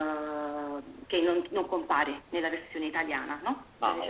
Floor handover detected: No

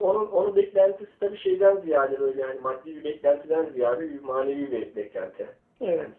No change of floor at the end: Yes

